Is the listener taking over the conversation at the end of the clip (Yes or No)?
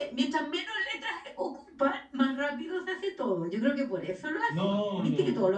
Yes